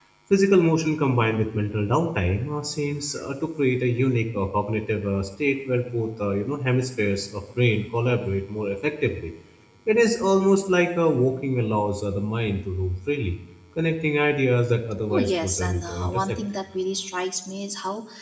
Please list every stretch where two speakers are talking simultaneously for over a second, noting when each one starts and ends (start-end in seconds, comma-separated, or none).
15.1-16.4